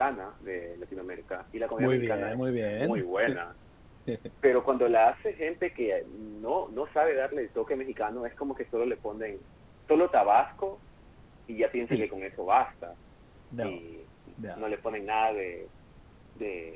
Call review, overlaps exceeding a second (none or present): present